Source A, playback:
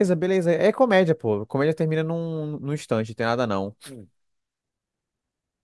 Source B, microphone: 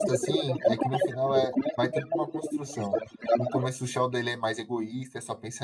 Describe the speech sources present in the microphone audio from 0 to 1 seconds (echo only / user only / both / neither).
both